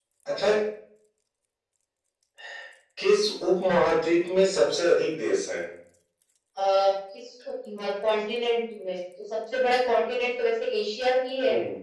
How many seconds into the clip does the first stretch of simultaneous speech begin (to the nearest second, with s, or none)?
none